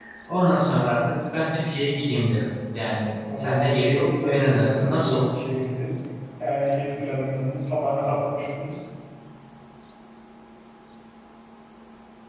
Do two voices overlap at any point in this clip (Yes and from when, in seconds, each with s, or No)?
Yes, from 3.2 s